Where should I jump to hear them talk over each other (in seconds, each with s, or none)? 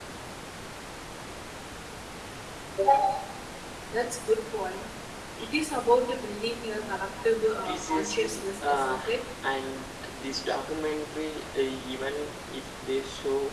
7.6 s